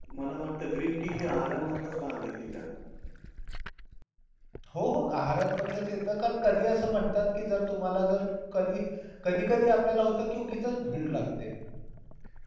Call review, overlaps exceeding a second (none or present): none